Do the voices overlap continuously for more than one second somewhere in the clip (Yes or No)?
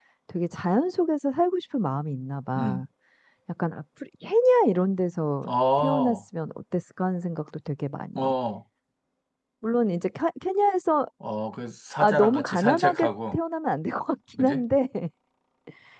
Yes